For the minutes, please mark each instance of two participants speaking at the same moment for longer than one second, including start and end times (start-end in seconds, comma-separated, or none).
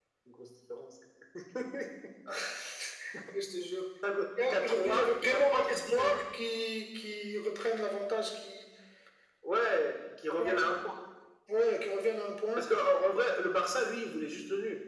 4.5-6.1